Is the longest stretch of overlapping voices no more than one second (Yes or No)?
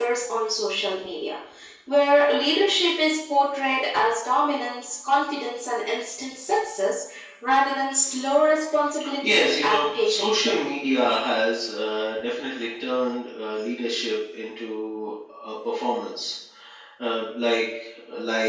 No